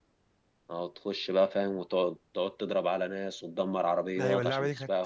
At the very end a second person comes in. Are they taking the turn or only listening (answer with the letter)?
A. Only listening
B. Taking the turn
B